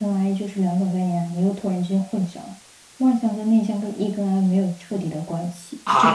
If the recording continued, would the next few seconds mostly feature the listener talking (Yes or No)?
Yes